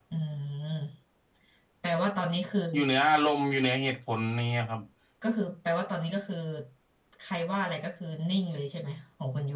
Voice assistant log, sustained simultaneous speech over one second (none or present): none